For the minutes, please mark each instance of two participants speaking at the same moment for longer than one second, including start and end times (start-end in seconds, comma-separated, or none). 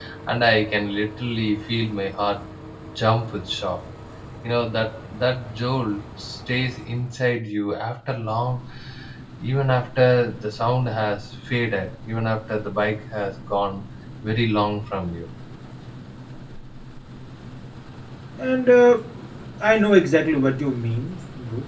none